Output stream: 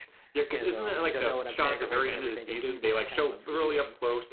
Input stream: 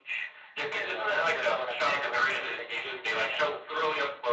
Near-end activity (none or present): none